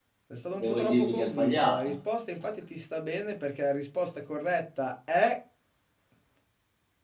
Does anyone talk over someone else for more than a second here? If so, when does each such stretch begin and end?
0.5-1.9

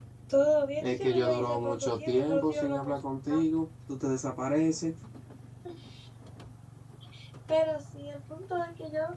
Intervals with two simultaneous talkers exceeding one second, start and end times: 0.8-3.0

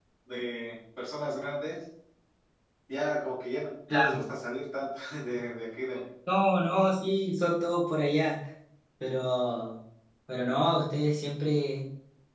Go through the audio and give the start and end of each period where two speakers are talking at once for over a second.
none

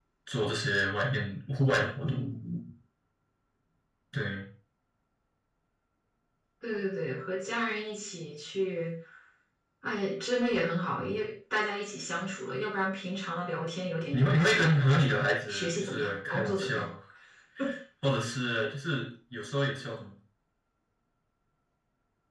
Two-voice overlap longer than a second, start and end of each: 15.5-16.8

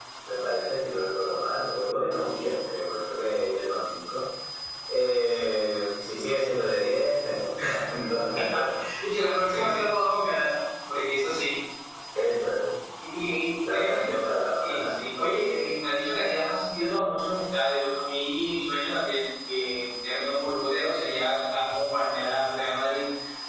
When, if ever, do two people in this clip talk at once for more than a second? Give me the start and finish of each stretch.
none

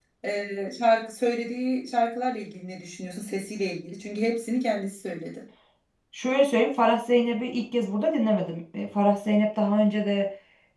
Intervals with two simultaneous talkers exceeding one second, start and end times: none

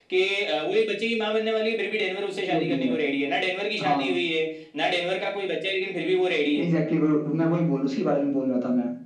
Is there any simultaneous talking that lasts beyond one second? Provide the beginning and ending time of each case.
none

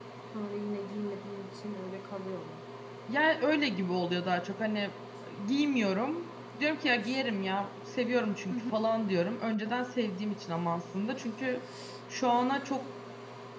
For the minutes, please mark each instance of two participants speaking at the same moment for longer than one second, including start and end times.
none

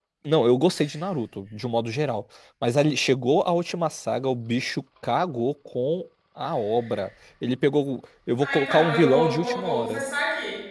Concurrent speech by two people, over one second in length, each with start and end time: 8.4-10.0

